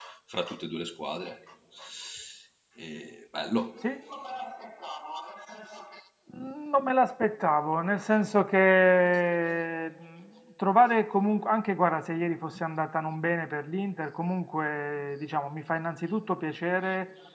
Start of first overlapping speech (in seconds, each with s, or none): none